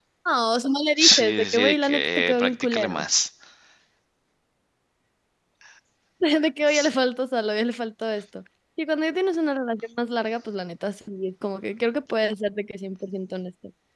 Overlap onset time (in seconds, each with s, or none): 1.0 s